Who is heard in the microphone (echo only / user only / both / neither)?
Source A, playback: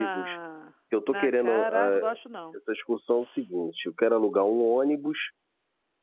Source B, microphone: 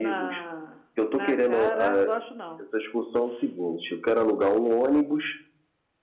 echo only